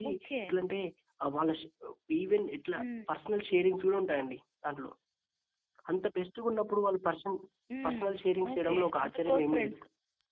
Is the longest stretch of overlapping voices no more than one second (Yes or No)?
No